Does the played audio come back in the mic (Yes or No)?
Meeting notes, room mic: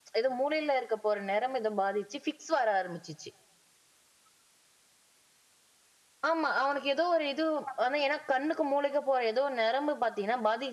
No